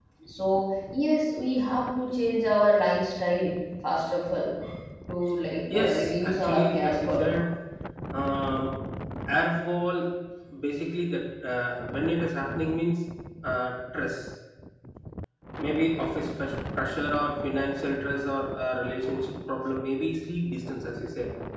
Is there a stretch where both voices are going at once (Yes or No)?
Yes